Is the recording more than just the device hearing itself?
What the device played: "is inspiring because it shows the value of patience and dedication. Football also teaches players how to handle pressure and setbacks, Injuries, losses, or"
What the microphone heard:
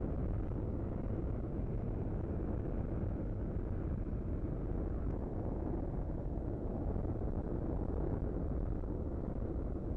No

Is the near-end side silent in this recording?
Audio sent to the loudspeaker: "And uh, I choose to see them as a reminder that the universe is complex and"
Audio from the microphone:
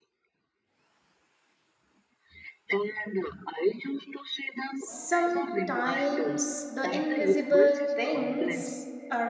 No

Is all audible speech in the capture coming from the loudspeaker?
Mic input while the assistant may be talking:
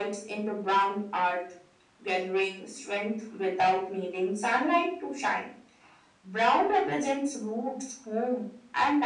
Yes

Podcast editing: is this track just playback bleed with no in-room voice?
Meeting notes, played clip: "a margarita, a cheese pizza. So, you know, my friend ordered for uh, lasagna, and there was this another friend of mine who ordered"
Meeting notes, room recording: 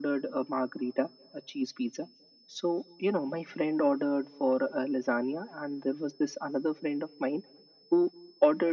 Yes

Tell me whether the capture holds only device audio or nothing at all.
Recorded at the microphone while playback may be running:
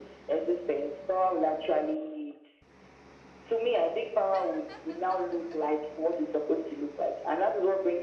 Yes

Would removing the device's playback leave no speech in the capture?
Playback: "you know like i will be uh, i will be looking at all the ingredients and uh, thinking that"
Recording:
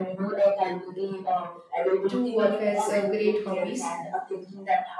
No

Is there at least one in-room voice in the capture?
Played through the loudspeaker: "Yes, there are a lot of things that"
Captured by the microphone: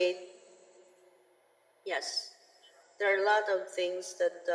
No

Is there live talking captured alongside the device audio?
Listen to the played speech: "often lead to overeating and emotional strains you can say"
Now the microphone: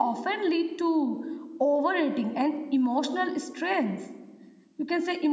No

